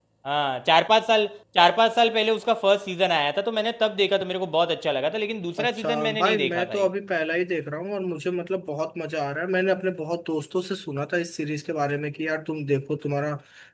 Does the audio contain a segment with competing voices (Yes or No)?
Yes